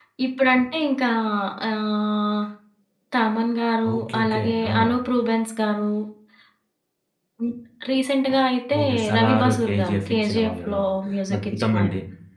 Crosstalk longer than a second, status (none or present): present